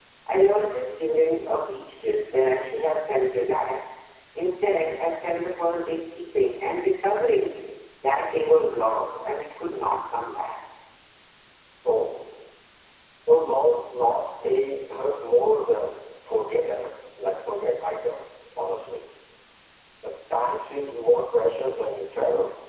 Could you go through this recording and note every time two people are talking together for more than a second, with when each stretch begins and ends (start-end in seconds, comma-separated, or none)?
none